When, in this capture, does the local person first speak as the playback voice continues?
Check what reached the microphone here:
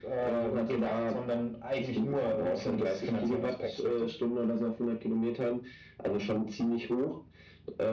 none

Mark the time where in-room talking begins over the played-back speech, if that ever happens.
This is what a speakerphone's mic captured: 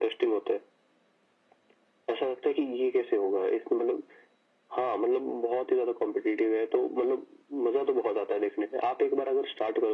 none

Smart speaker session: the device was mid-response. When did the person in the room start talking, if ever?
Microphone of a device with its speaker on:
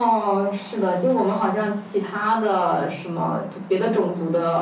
none

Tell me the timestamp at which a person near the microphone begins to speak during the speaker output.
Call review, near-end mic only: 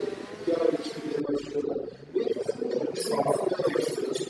none

